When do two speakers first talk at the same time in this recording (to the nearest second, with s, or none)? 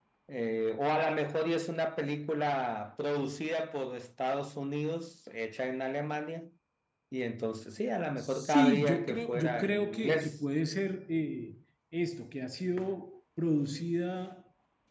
8 s